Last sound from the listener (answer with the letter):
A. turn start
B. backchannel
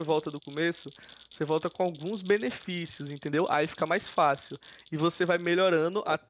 B